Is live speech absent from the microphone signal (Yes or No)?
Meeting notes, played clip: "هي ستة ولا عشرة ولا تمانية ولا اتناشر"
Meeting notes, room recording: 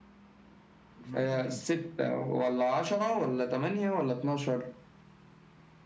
No